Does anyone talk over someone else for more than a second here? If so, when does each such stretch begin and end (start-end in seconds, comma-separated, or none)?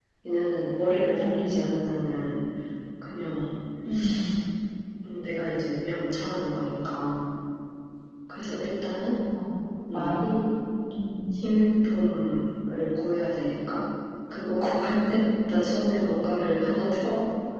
none